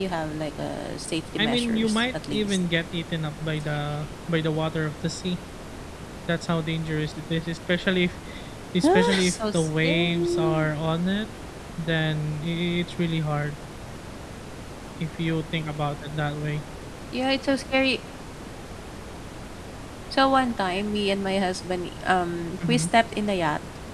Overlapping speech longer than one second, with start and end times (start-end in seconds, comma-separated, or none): 1.4-2.6, 8.9-10.7